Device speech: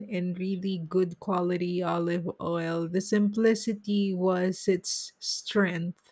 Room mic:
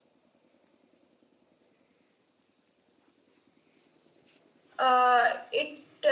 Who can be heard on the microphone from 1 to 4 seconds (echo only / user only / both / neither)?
neither